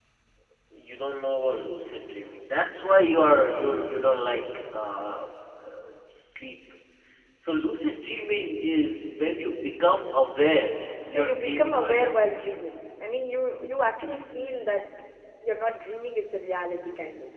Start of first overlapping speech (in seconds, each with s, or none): 11.1 s